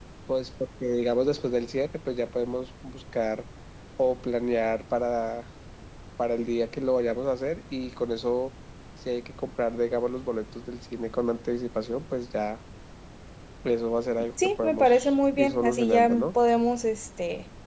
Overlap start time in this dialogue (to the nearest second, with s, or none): 15 s